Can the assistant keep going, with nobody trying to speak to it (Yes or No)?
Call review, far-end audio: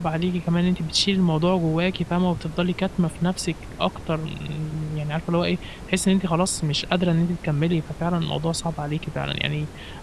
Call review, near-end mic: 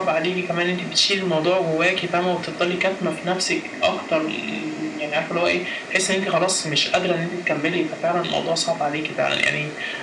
Yes